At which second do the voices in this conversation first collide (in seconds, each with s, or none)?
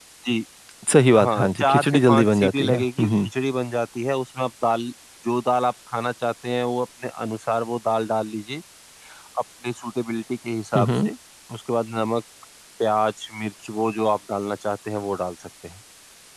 1.2 s